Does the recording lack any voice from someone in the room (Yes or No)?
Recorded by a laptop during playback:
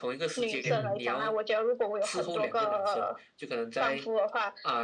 No